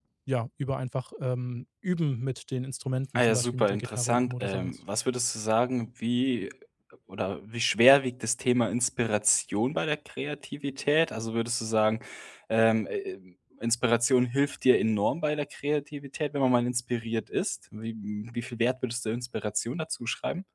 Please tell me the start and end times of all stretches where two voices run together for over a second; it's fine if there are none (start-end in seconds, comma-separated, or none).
3.1-4.7